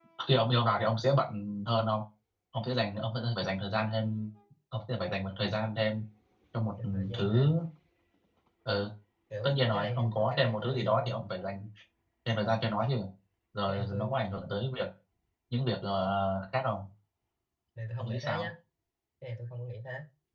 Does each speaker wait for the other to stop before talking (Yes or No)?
No